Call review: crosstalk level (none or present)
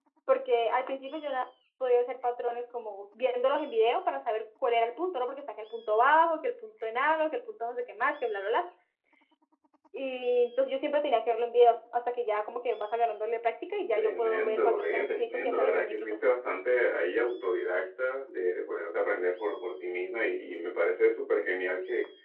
present